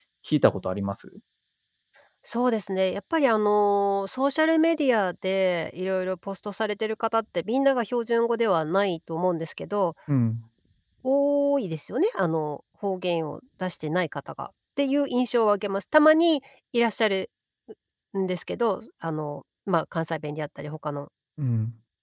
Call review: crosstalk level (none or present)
none